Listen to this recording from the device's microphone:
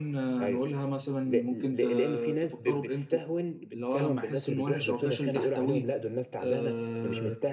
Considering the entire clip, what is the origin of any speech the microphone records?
both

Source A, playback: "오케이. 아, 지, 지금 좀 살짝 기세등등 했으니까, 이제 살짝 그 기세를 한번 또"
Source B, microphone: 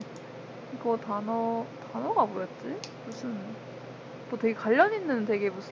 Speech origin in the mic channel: user only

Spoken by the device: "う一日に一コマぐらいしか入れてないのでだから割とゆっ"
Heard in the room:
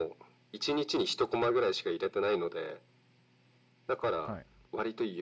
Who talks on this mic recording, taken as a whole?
both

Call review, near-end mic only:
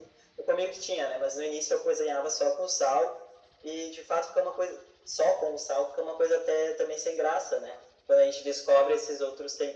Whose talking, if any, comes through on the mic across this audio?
echo only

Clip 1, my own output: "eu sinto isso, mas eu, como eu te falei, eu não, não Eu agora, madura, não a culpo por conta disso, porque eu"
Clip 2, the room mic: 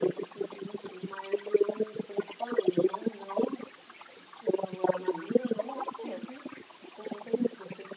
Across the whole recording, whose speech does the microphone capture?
both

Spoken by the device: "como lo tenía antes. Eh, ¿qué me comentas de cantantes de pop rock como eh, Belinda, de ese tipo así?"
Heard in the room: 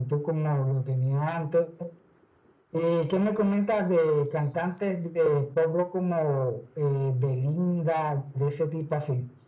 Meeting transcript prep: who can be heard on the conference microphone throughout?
echo only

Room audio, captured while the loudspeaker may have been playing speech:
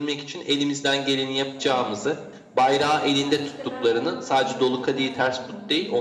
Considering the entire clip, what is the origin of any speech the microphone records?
both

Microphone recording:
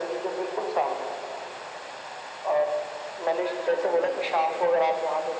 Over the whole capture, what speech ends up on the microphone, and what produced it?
both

